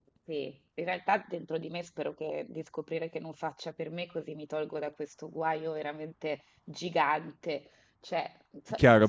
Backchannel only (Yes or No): No